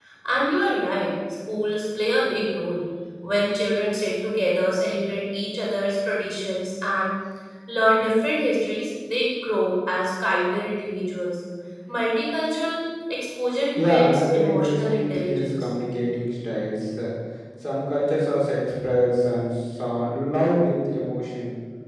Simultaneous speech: Yes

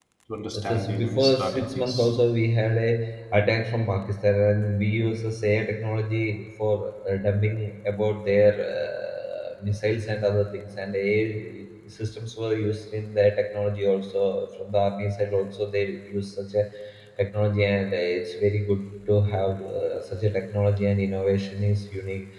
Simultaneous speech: Yes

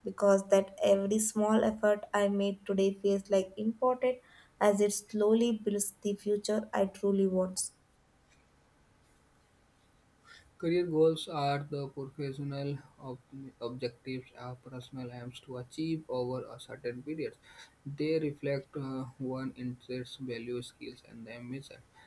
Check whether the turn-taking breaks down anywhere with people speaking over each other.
No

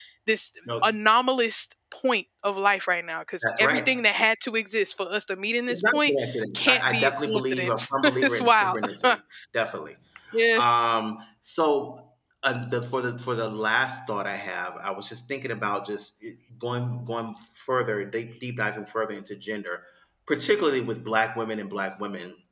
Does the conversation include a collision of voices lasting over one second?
Yes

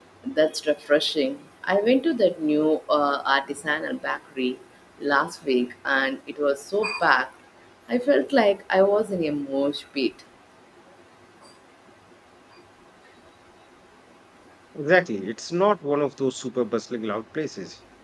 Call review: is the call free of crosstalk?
Yes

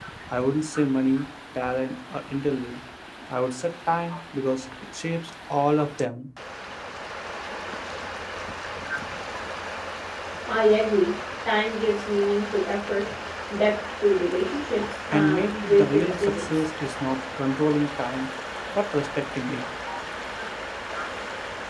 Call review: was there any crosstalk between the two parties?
Yes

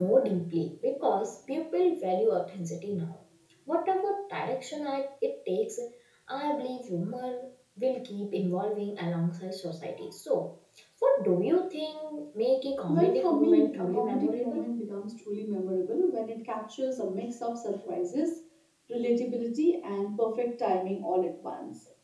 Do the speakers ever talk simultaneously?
Yes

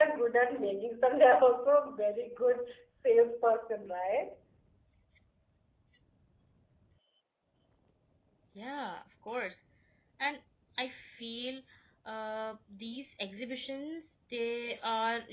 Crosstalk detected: No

